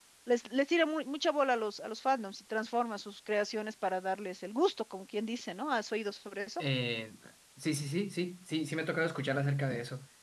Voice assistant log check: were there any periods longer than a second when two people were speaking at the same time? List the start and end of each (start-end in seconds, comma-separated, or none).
none